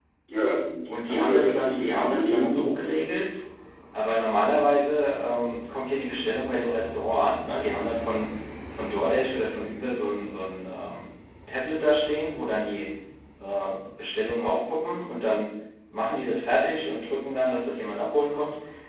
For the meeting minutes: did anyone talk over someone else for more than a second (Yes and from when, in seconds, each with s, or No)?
Yes, from 1.1 s